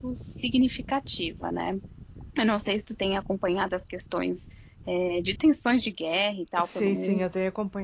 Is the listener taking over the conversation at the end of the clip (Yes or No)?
Yes